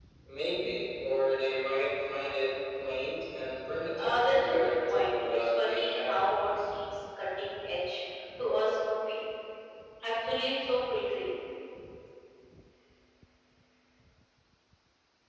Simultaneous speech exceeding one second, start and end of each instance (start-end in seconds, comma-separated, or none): 4.0-6.2